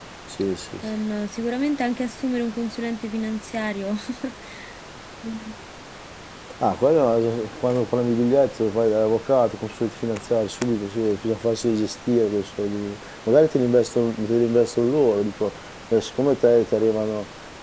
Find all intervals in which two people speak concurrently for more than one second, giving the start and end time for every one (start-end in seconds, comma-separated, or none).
none